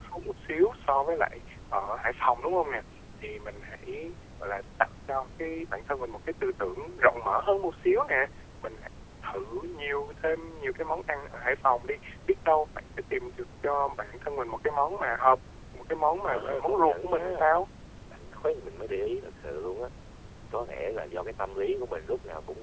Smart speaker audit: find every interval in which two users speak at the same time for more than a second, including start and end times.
16.2-17.5

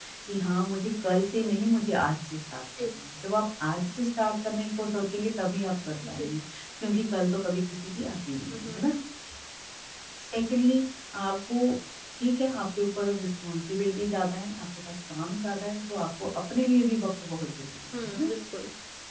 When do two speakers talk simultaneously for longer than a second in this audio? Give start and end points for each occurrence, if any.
none

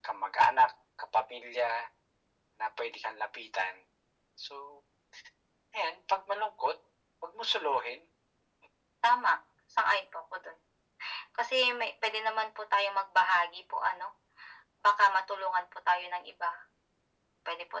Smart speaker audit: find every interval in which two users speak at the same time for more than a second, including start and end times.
none

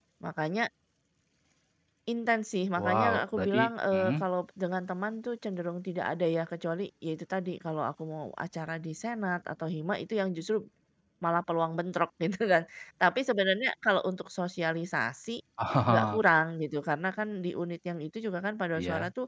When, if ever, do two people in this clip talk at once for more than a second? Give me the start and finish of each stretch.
2.8-4.2

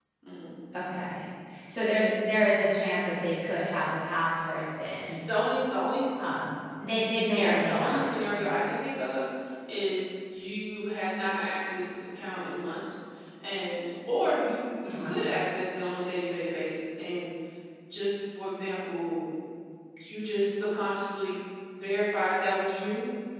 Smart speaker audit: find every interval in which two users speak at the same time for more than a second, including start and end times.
7.3-8.6

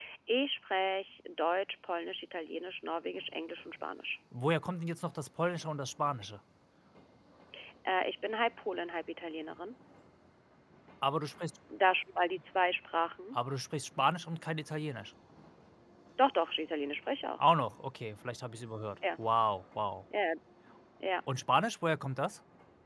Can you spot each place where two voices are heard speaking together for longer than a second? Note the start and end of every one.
none

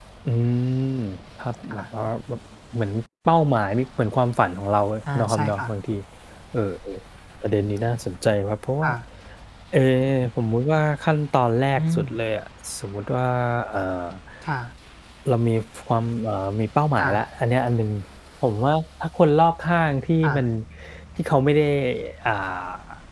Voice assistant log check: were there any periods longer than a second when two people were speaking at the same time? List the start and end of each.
none

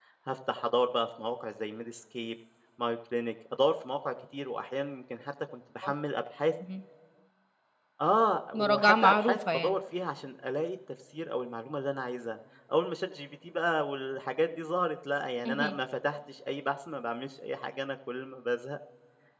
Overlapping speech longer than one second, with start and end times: 8.5-9.8

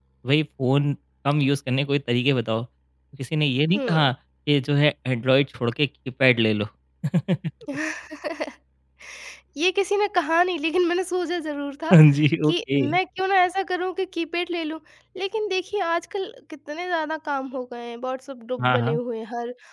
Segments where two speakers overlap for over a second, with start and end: none

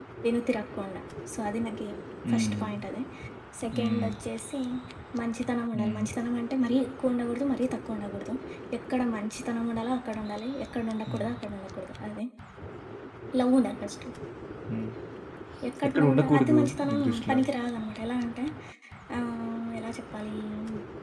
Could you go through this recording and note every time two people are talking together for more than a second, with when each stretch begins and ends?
15.9-17.4

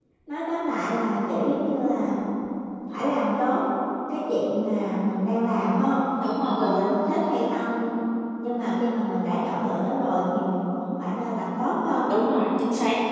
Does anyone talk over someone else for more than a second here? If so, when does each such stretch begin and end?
none

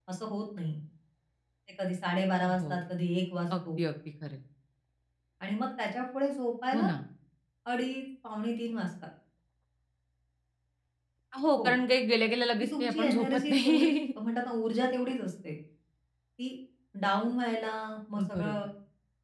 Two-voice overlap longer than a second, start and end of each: 12.6-13.9

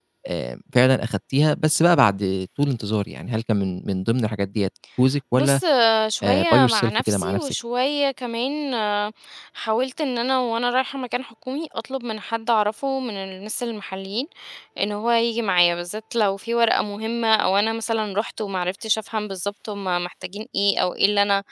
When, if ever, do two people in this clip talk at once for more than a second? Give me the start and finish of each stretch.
6.2-7.5

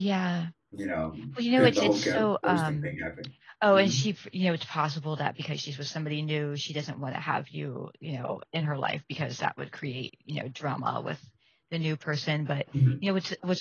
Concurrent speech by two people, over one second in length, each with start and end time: 1.6-3.0

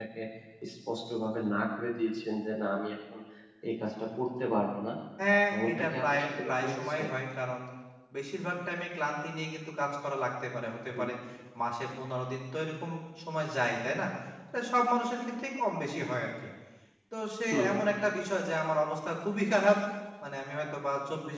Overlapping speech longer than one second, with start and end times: 5.6-7.0

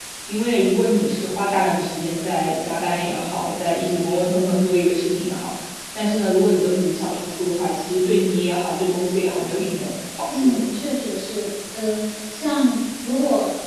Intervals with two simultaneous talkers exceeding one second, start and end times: none

